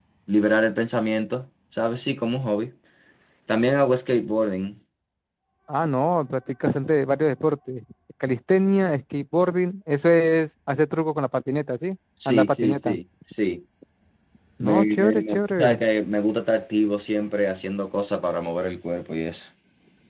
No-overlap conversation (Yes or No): No